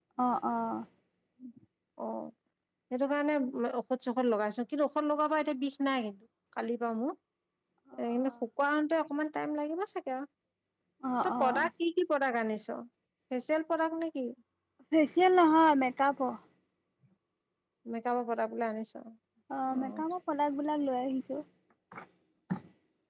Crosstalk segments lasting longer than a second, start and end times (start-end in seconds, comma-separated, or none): none